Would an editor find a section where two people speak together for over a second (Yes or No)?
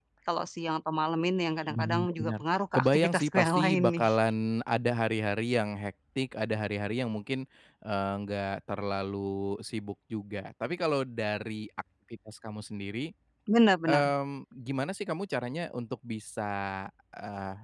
Yes